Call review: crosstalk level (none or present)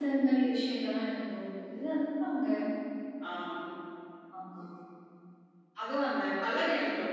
none